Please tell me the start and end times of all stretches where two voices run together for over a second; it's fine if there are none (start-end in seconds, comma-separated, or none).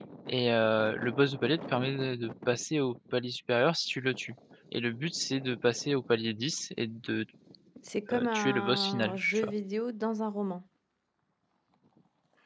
8.1-9.5